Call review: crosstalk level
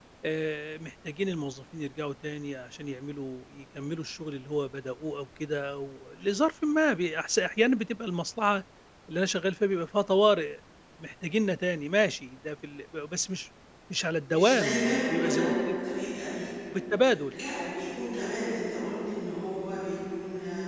present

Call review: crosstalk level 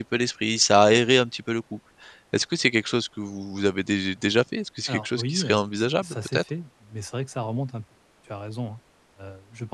present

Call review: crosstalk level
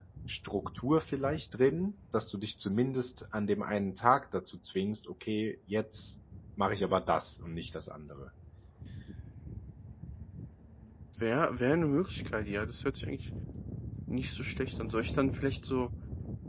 none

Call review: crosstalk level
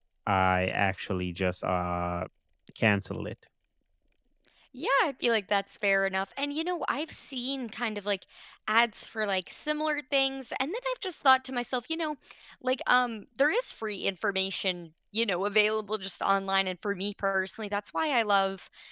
none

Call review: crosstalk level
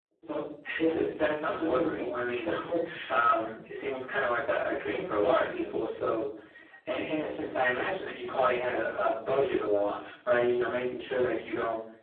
present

